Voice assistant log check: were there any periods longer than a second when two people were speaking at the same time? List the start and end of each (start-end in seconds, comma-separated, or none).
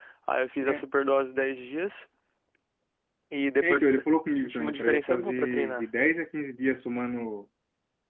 4.4-5.8